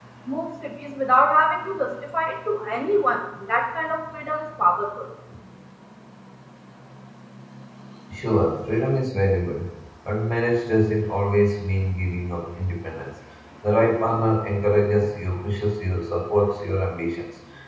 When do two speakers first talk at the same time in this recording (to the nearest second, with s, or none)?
none